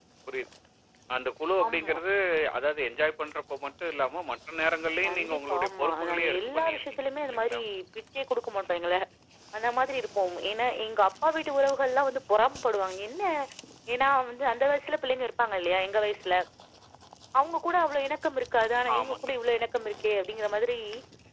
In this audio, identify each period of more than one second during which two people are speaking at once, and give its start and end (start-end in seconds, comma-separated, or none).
5.1-7.6